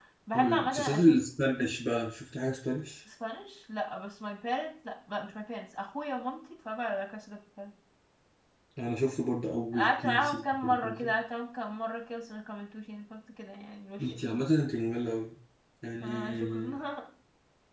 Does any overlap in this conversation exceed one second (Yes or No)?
Yes